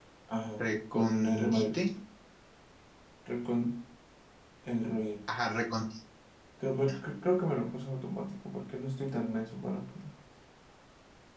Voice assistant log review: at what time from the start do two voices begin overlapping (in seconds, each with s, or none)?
0.6 s